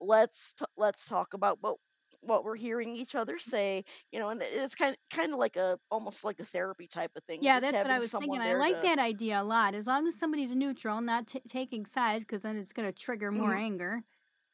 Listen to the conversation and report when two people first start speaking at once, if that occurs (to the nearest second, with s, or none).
7 s